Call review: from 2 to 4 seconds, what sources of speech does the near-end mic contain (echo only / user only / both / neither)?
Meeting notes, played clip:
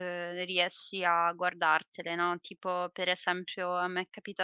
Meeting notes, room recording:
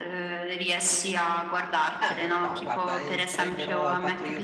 both